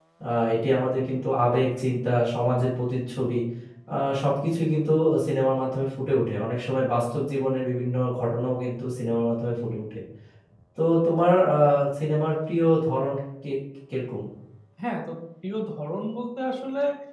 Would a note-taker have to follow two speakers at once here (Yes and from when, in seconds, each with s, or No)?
No